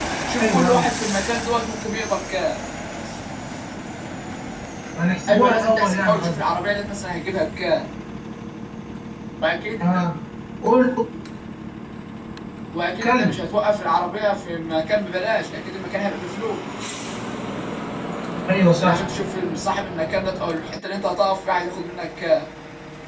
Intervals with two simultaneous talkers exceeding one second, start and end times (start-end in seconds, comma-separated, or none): 5.3-6.5